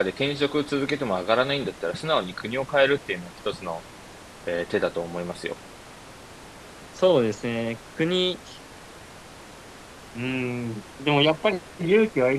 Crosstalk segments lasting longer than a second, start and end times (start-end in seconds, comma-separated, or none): none